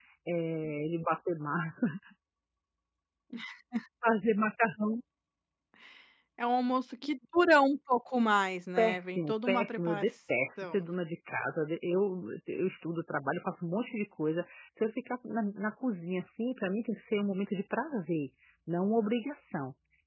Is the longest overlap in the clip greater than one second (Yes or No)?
Yes